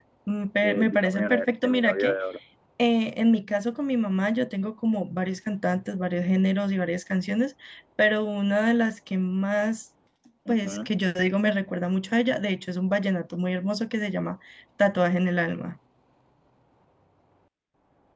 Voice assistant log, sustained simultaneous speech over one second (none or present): present